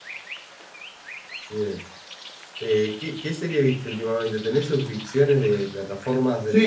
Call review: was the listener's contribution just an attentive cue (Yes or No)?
No